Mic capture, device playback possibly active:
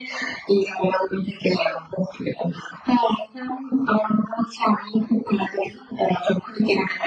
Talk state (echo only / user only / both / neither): echo only